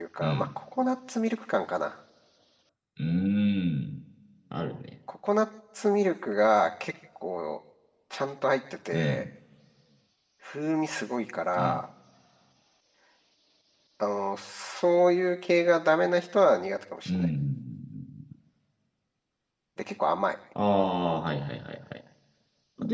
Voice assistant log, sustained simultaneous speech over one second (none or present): none